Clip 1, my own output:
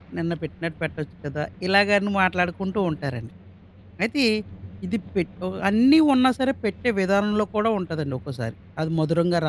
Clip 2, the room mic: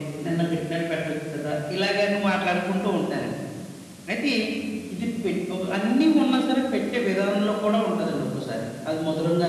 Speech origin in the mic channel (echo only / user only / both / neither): echo only